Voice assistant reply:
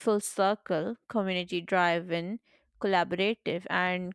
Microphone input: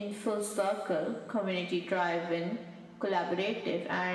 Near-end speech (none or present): none